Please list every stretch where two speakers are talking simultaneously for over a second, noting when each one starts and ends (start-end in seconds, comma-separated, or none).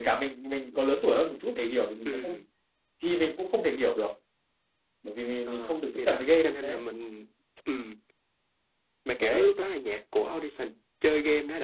5.5-6.8